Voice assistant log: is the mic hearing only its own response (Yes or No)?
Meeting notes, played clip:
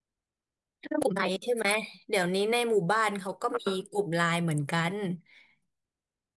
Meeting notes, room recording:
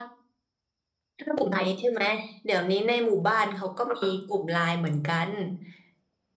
Yes